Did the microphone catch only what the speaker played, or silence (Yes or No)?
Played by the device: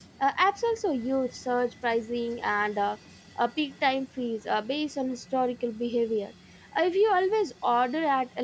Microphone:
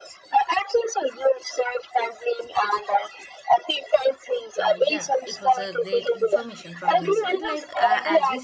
No